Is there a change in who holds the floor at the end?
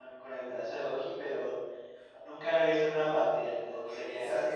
Yes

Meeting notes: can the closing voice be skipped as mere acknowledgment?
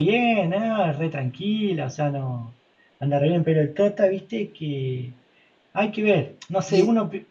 No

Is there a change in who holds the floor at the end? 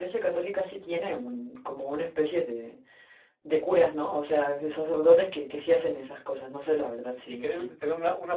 Yes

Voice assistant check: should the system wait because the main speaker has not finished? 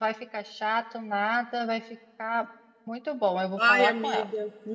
No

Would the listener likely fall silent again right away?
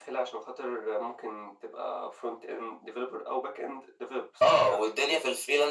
No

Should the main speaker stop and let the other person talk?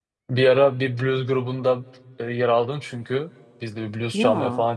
No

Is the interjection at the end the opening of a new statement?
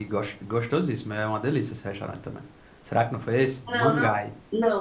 Yes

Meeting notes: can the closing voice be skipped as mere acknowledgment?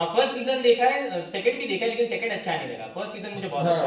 No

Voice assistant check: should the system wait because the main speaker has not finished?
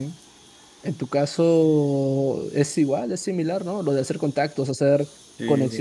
Yes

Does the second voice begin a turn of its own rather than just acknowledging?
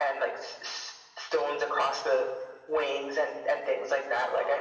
Yes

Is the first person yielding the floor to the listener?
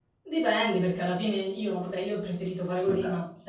No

